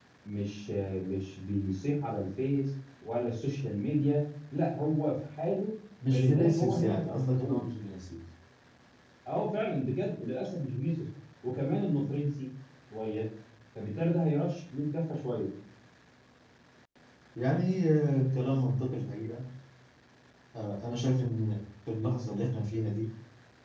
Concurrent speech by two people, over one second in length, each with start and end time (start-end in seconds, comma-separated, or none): 6.1-7.6